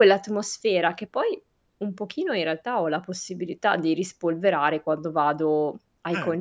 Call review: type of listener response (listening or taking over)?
listening